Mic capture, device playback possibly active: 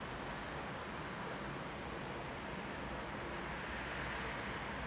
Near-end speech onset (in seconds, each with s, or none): none